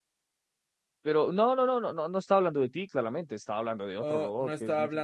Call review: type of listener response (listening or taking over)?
taking over